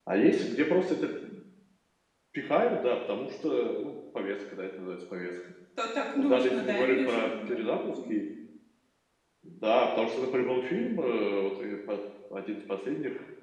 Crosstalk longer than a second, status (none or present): present